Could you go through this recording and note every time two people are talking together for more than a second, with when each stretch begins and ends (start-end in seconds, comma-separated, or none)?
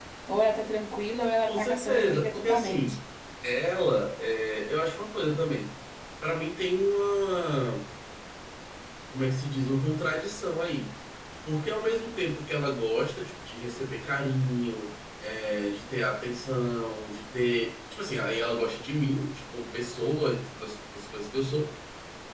1.5-2.8